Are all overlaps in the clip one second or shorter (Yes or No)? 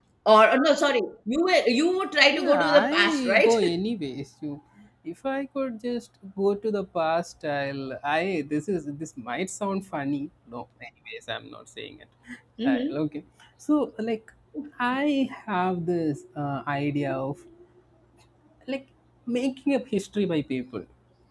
No